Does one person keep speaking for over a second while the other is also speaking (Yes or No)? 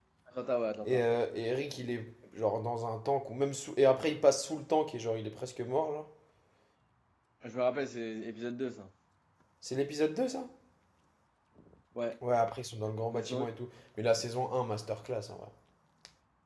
No